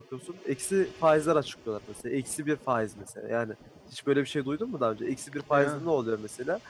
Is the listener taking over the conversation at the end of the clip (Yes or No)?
No